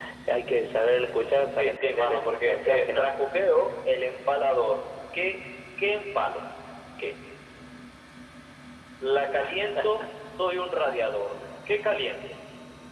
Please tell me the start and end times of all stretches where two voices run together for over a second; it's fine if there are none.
1.6-3.1

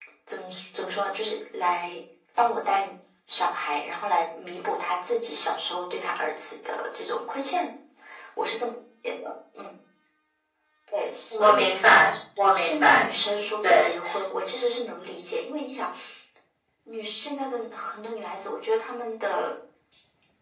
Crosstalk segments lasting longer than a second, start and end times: none

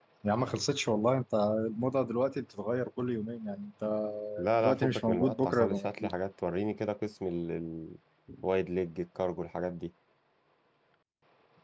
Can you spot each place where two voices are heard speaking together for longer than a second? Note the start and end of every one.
4.6-6.1

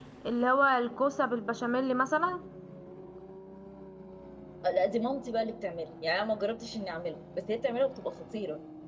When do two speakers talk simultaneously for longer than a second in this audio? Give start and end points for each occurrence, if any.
none

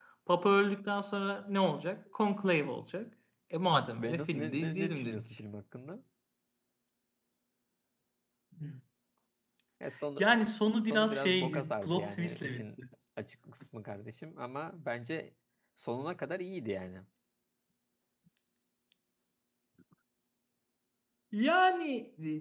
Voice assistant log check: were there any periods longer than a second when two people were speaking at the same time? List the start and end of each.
4.0-5.4, 10.8-12.7

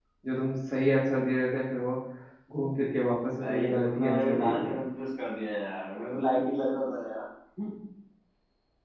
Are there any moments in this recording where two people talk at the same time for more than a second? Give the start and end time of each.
3.4-4.8

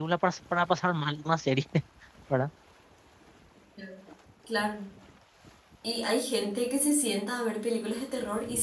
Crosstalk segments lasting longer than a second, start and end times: none

